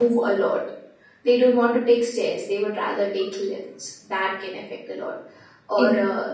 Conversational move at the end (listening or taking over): listening